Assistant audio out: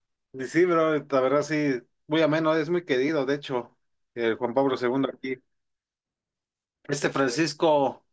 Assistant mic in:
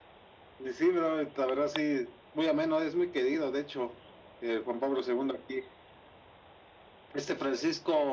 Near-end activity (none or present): none